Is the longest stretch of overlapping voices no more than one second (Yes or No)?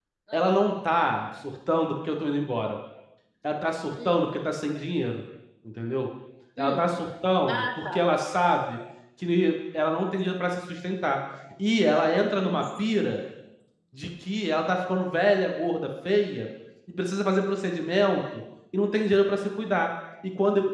Yes